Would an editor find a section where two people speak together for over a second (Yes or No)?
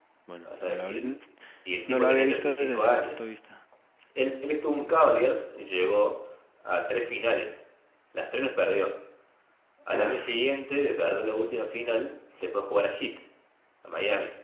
Yes